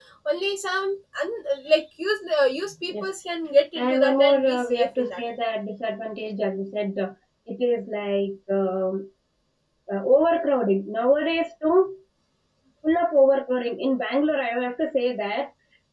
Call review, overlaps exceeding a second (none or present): present